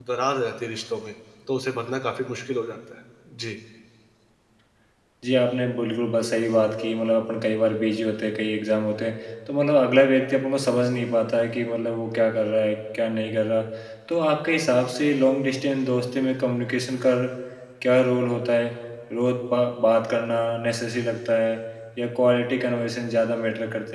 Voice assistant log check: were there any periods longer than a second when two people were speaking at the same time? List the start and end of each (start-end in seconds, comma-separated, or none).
none